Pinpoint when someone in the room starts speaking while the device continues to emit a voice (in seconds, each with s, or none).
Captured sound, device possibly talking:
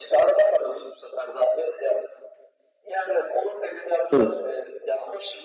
4.1 s